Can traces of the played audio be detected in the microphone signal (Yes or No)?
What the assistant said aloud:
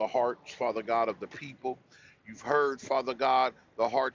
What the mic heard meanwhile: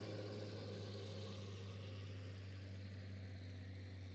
No